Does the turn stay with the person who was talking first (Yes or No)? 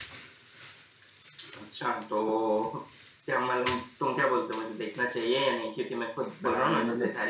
No